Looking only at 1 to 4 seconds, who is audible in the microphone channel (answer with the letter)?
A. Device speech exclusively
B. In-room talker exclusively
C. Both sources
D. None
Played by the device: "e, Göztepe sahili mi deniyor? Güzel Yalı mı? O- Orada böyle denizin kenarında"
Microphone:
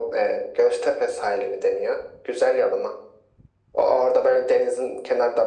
A